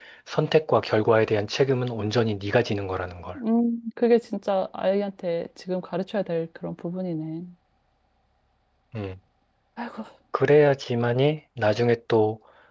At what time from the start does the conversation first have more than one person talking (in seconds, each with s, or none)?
none